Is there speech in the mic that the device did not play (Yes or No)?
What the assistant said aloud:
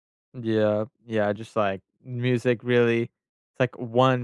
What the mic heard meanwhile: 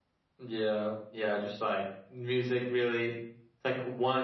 No